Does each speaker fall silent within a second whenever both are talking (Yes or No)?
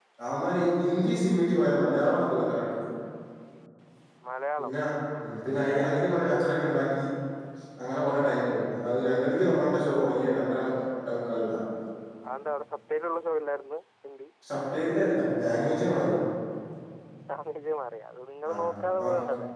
Yes